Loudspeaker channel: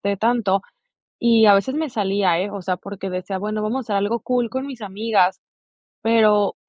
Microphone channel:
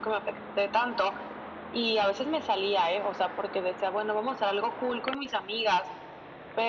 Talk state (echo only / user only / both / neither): echo only